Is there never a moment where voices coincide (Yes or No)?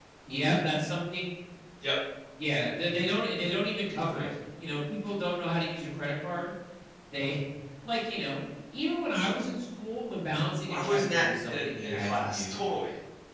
No